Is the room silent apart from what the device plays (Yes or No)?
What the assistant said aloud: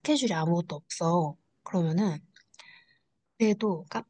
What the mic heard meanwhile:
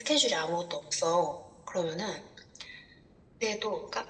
Yes